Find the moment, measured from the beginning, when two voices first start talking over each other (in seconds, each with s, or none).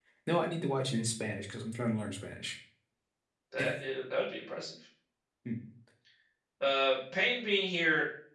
none